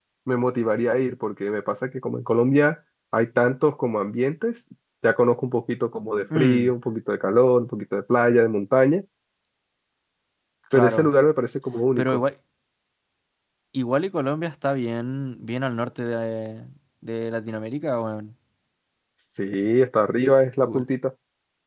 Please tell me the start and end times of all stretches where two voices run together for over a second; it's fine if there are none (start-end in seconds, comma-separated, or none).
none